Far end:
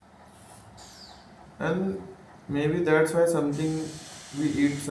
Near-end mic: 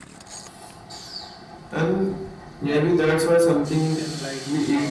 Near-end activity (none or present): present